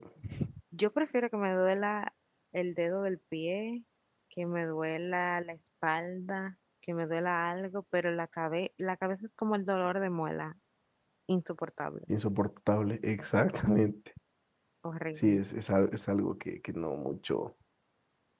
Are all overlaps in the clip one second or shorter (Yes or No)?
Yes